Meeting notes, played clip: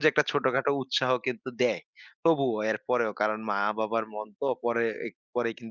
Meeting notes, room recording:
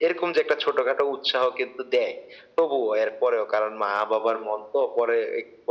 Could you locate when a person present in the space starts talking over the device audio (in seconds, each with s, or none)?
none